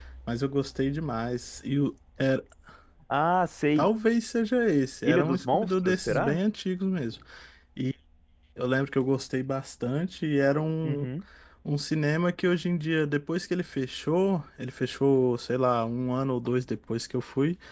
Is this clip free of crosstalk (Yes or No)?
No